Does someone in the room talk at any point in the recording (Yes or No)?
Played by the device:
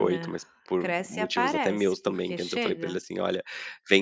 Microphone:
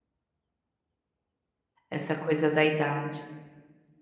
Yes